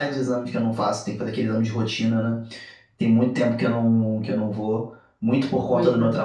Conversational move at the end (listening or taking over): listening